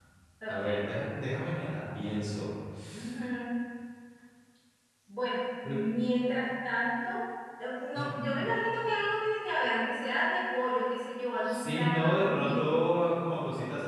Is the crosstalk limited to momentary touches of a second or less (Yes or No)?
No